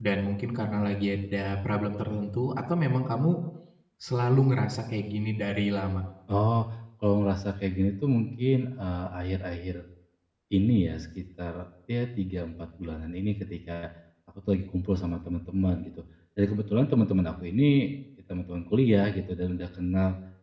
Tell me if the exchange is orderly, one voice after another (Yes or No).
Yes